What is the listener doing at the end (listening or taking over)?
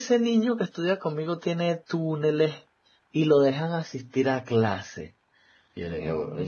listening